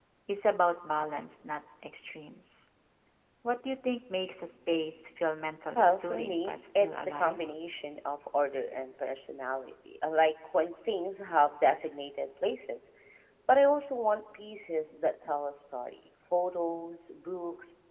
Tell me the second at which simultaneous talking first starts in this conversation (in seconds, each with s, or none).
5.8 s